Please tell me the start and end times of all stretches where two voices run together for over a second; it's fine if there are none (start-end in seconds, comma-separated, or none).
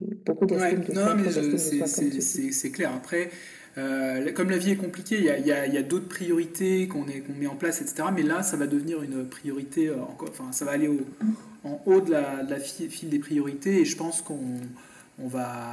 0.5-2.1